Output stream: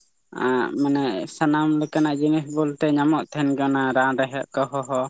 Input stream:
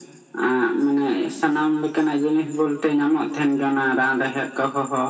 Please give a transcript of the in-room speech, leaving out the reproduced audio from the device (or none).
none